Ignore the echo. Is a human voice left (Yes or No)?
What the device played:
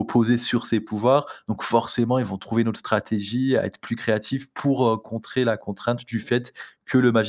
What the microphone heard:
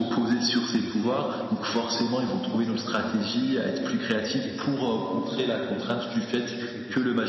Yes